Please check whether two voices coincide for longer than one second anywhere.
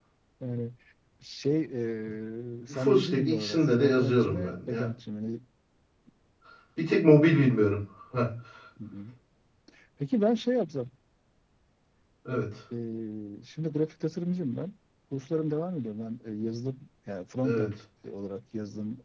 Yes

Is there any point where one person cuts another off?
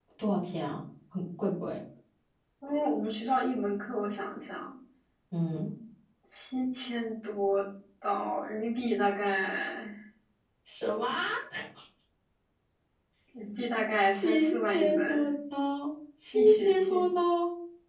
Yes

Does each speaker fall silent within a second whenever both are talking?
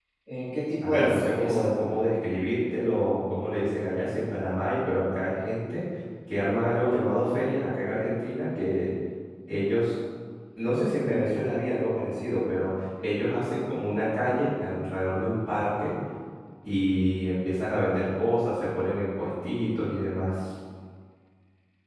No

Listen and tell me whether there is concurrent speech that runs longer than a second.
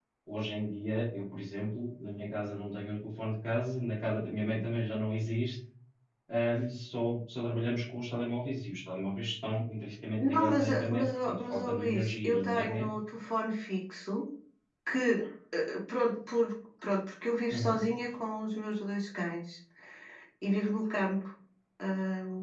Yes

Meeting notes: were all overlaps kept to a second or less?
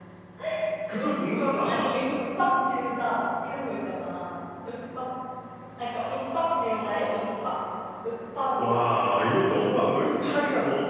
No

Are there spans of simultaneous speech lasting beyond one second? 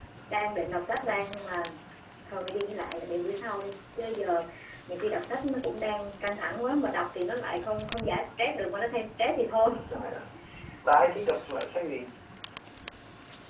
No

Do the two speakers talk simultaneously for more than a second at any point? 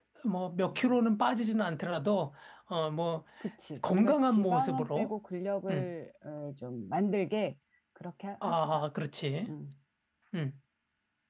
Yes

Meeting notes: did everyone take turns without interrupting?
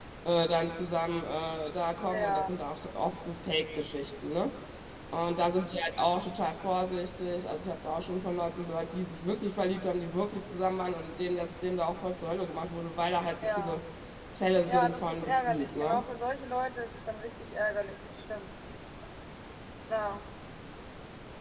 No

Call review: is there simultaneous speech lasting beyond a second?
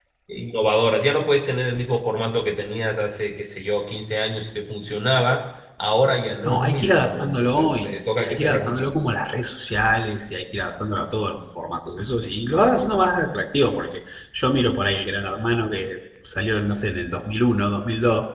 Yes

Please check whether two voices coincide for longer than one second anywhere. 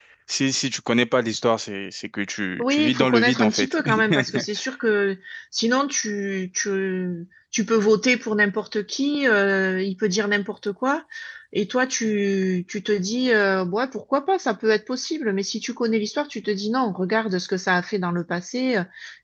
Yes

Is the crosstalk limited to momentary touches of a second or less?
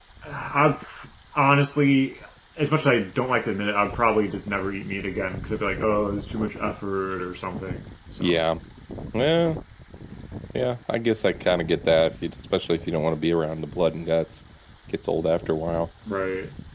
Yes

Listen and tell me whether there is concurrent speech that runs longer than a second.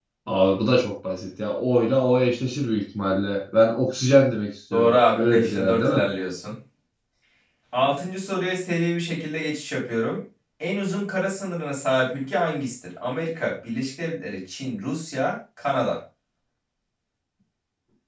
Yes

